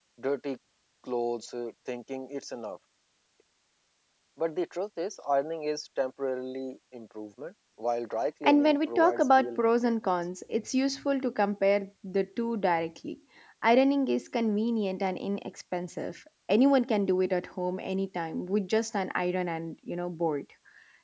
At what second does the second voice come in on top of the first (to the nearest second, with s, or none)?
8 s